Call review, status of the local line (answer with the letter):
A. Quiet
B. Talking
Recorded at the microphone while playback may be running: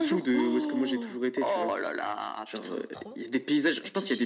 B